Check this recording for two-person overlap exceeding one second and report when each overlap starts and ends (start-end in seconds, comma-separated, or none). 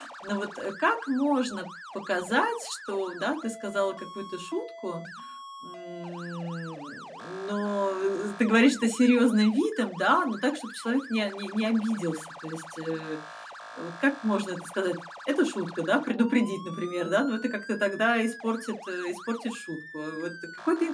none